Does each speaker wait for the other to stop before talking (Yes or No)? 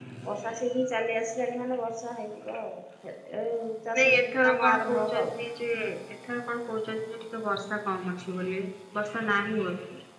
No